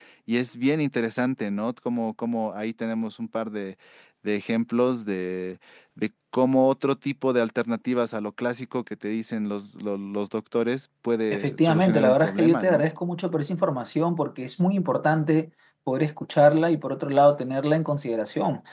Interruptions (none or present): present